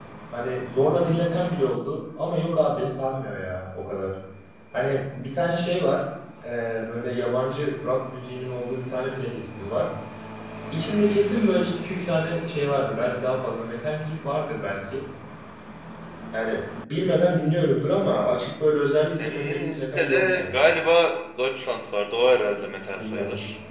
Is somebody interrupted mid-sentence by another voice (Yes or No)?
Yes